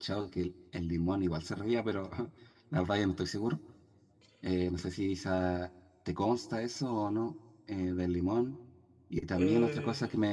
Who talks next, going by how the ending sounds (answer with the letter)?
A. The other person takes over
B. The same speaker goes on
B